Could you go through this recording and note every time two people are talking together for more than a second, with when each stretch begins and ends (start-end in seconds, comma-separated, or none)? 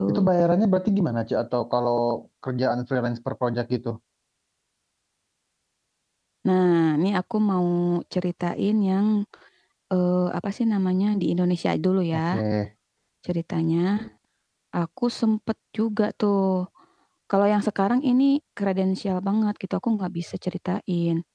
none